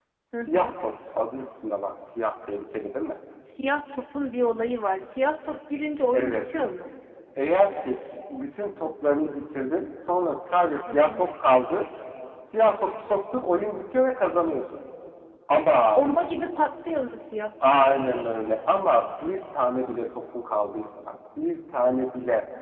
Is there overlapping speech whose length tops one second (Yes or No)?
No